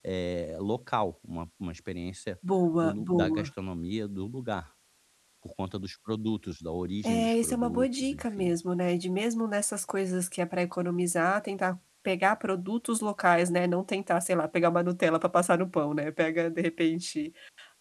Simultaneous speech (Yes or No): Yes